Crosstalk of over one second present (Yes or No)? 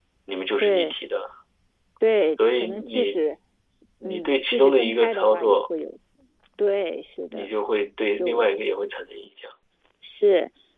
Yes